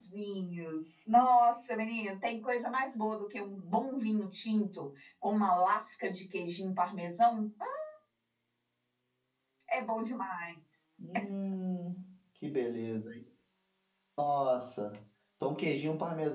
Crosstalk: none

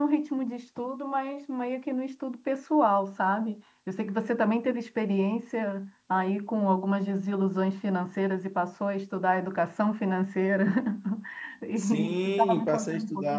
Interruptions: present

